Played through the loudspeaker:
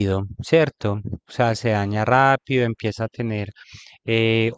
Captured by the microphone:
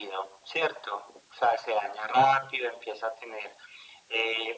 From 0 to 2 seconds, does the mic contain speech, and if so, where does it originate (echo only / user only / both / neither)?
echo only